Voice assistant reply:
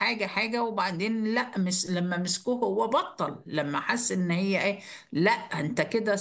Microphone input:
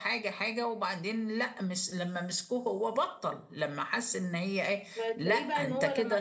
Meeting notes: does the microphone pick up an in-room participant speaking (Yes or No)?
Yes